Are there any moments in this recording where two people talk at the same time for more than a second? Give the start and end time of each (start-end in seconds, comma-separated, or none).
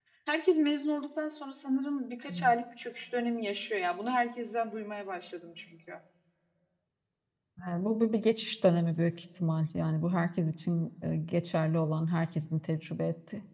none